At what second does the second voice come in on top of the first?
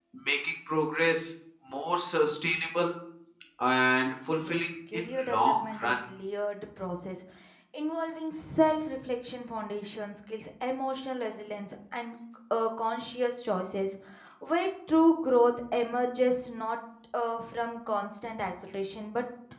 4.4 s

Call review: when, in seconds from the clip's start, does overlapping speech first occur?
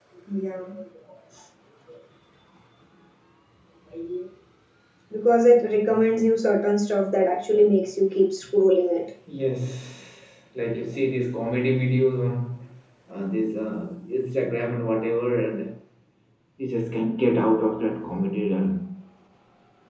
none

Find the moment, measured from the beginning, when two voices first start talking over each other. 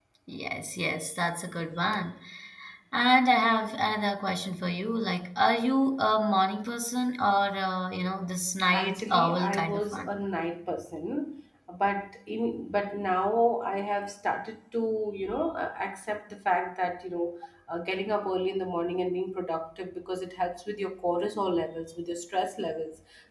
8.7 s

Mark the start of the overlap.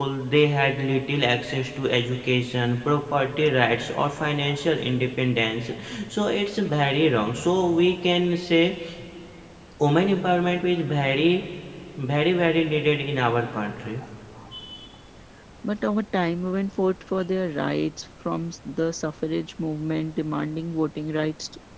none

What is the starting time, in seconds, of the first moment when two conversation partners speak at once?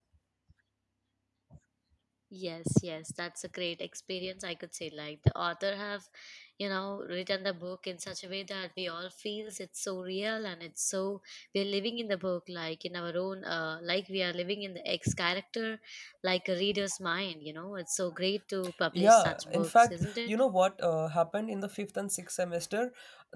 18.9 s

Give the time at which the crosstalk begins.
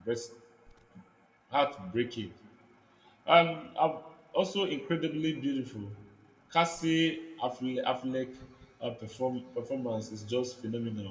none

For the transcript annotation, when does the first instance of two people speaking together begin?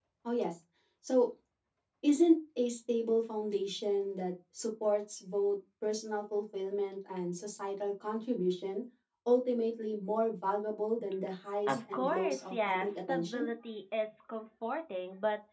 11.7 s

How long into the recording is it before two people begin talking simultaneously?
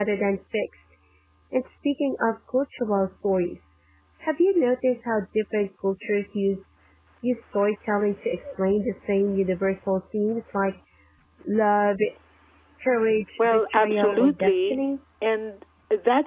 13.4 s

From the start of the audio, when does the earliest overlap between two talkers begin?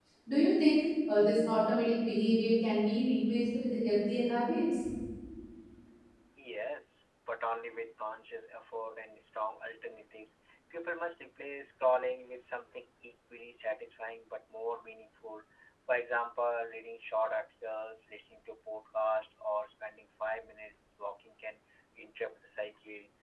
none

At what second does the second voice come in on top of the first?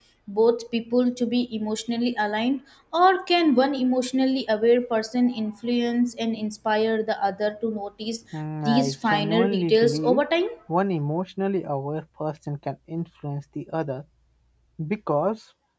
8.7 s

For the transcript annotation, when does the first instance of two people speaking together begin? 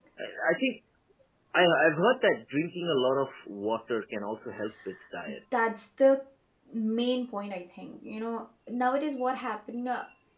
none

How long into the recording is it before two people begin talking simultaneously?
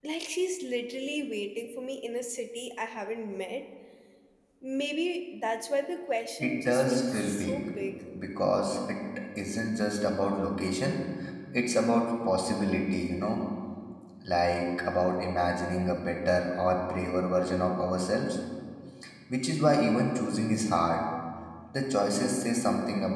6.4 s

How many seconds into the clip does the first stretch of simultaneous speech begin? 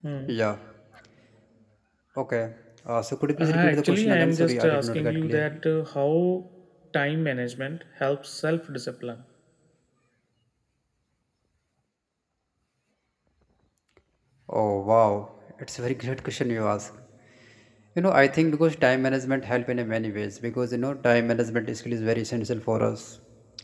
3.4 s

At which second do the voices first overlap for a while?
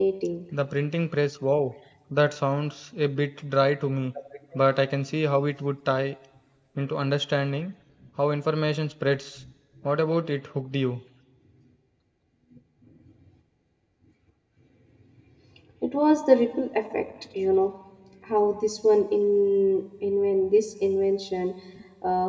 none

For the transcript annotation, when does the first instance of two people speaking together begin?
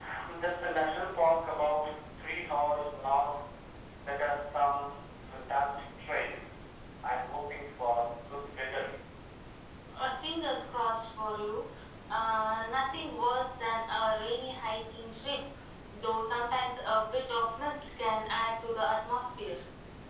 none

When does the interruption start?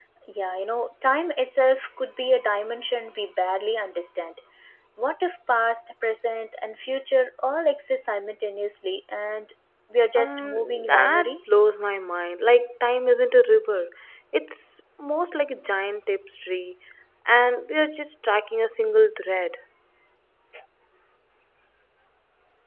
10.2 s

